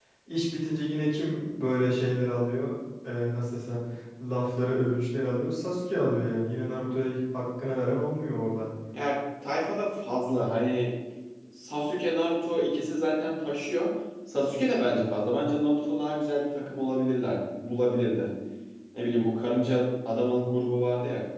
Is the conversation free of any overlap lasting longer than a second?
Yes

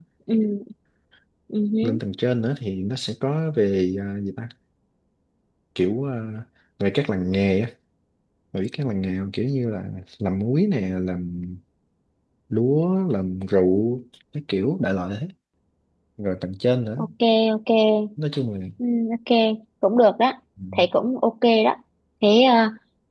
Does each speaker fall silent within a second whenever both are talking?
Yes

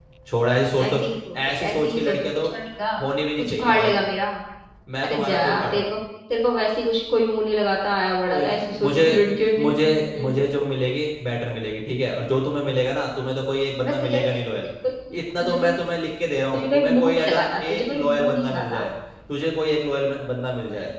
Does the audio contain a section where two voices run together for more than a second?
Yes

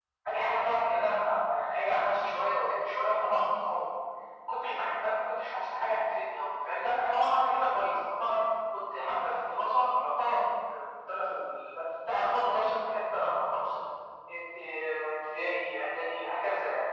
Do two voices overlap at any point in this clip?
No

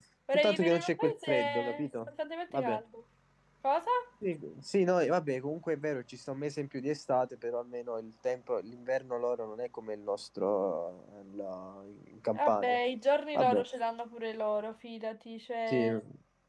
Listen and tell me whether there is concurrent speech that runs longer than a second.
Yes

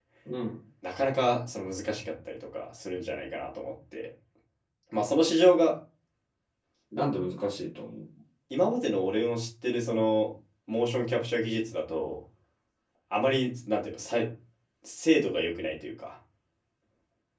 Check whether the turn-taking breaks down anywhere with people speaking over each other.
No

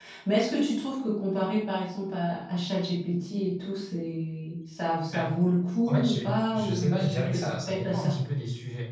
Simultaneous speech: Yes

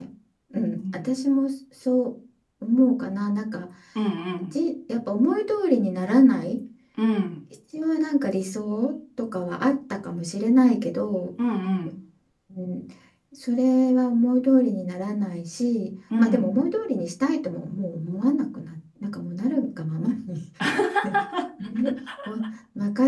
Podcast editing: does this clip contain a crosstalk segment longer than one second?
No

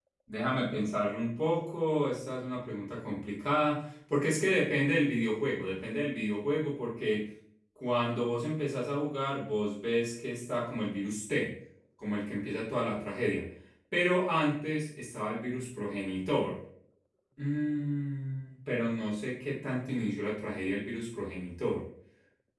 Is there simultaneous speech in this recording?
No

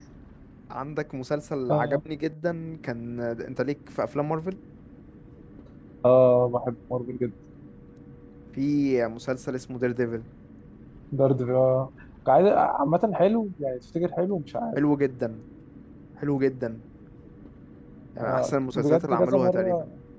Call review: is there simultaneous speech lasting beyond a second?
Yes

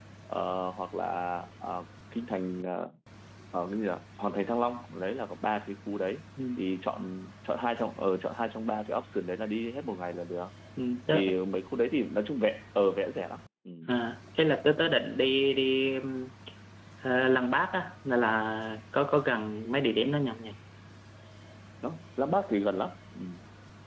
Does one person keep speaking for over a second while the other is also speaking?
No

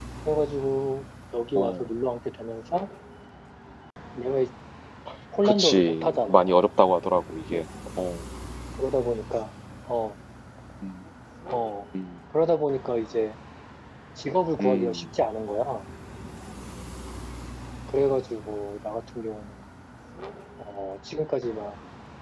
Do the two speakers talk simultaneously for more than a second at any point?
Yes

